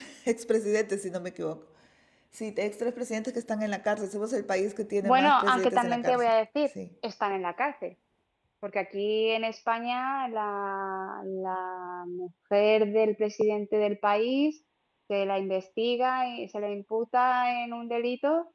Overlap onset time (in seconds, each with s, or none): 5.0 s